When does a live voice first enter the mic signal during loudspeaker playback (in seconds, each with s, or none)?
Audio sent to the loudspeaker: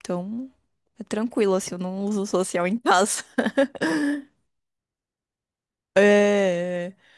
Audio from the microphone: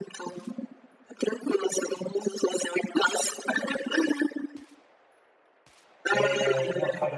6.1 s